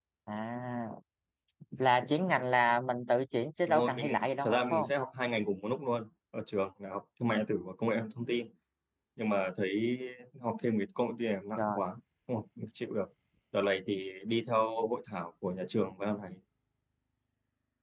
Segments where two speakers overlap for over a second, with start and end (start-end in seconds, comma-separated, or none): 3.6-4.9